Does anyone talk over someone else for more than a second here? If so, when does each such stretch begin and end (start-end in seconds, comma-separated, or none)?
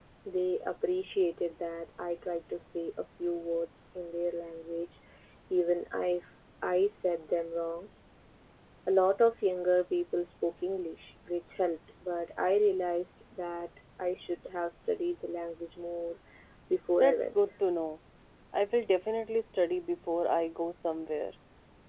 none